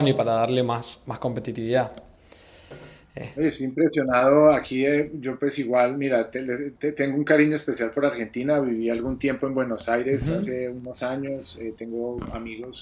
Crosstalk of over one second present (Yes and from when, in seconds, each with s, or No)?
No